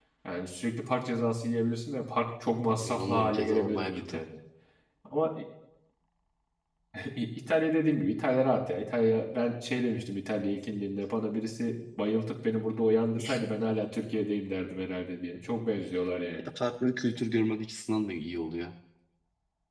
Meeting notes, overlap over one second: present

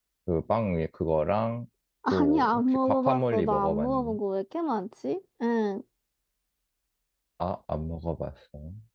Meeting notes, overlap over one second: present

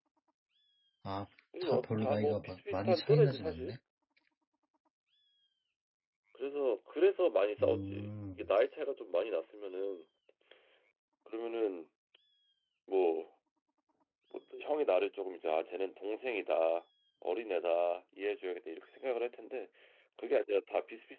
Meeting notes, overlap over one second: present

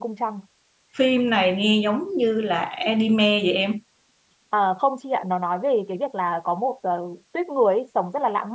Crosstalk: none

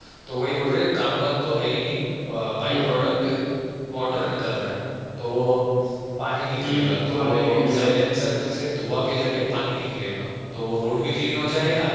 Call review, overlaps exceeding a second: present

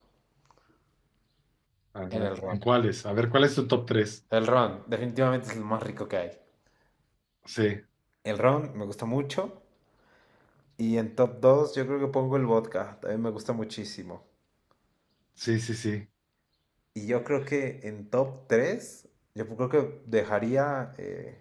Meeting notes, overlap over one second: none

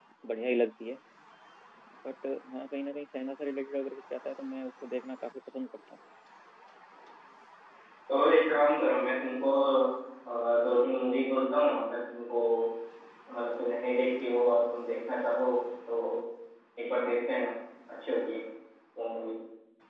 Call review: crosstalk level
none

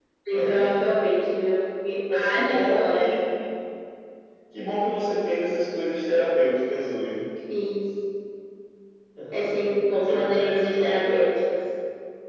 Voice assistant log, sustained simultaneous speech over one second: present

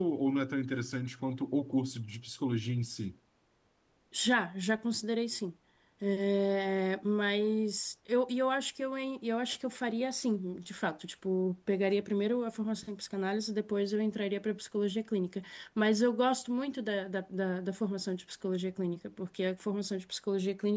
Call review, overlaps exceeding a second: none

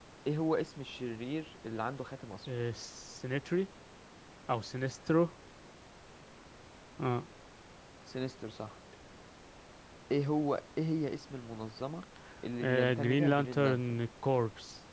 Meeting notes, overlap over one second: present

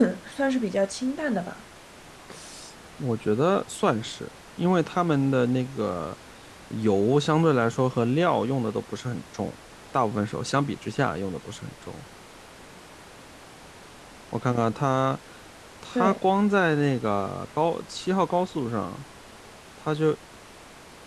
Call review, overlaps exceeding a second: none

